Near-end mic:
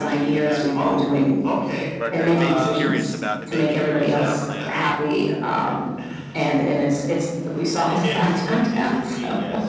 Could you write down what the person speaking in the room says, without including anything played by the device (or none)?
but uh, it made me curious about it made me curious about plan B.